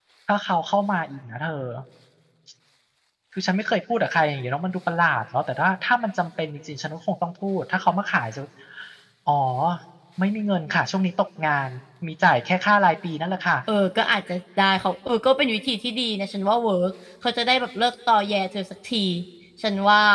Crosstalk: none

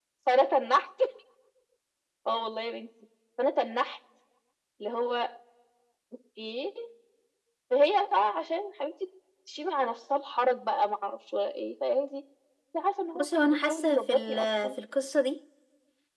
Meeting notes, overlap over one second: present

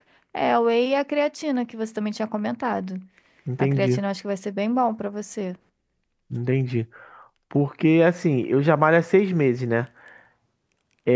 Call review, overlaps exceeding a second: none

